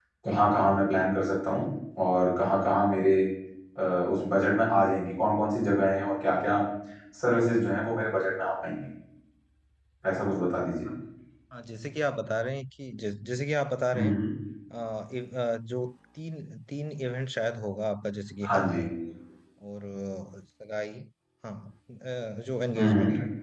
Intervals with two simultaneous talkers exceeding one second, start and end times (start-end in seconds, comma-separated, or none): none